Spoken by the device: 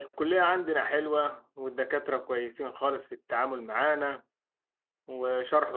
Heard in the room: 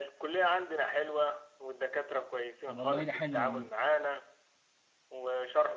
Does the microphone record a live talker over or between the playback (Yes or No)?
Yes